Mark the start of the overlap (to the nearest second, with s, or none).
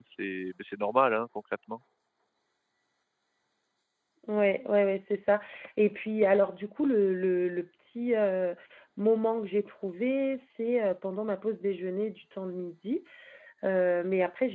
none